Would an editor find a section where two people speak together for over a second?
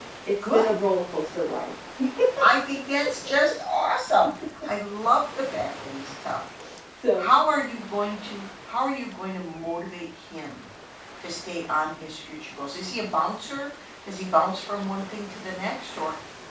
No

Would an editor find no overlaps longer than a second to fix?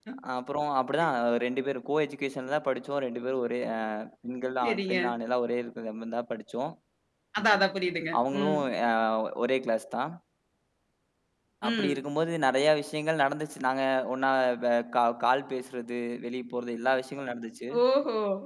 Yes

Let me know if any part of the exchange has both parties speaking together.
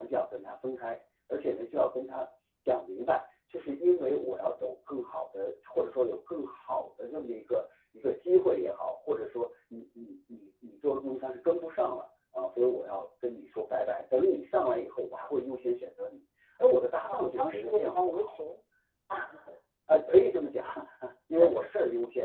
Yes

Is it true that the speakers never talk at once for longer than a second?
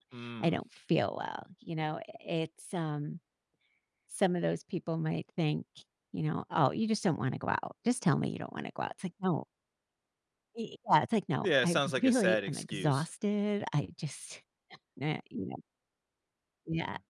No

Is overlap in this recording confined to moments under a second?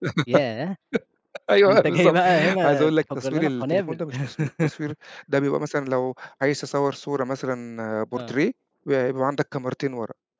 No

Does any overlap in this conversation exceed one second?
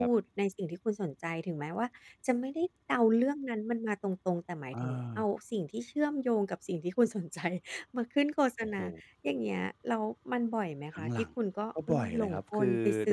Yes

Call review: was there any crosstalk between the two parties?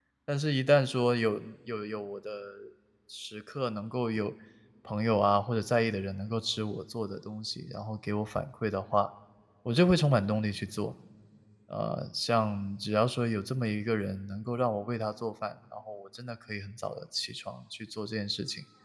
No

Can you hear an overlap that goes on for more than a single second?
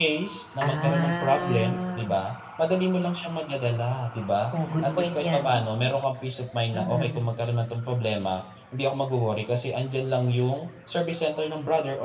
Yes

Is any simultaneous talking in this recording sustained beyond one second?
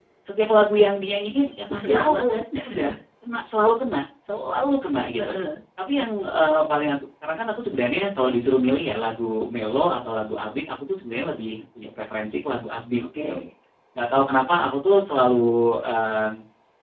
No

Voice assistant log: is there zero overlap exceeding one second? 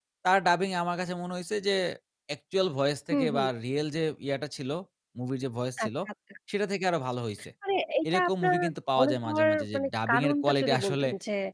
No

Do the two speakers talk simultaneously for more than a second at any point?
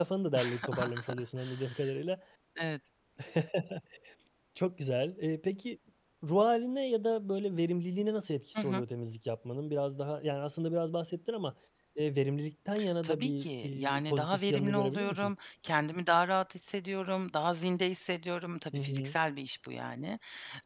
Yes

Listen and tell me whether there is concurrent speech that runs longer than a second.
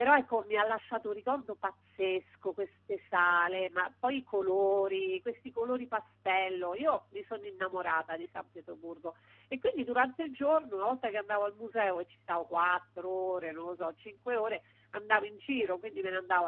No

